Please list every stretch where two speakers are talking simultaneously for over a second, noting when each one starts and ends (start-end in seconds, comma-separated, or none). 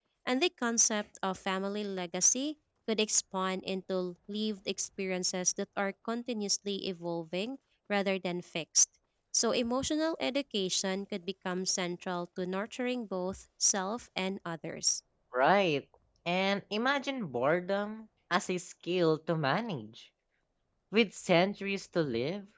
none